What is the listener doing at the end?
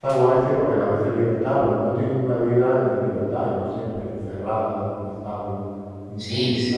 taking over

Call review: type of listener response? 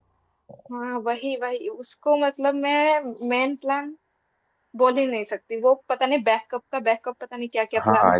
taking over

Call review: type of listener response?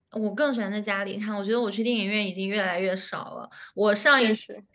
listening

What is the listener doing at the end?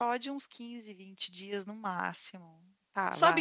taking over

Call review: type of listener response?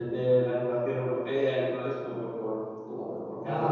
listening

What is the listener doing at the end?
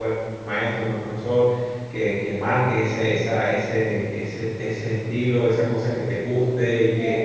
listening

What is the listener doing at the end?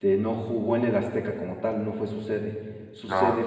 listening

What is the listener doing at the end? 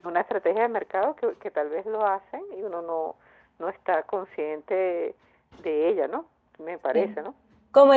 taking over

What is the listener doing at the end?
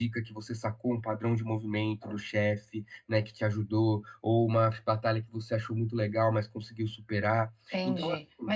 taking over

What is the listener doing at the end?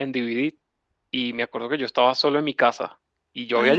listening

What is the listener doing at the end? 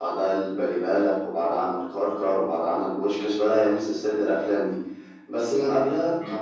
taking over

